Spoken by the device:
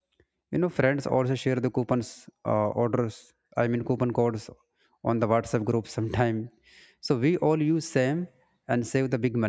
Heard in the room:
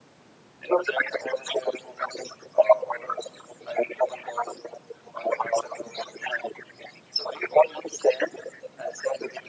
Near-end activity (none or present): none